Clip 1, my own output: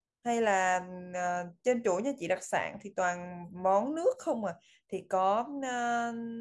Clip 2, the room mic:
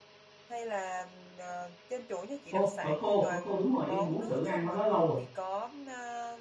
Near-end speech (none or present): present